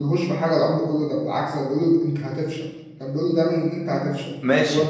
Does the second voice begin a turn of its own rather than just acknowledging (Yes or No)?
Yes